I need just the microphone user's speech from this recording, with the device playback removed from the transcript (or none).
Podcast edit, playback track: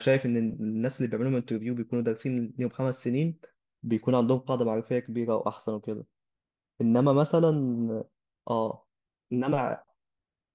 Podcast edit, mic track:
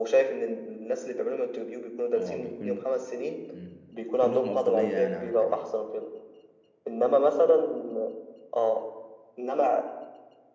اه بيكون مم. كلهم افضليه يعني عن التانيين